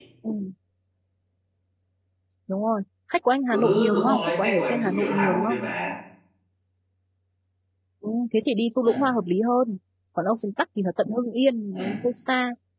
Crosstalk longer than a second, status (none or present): present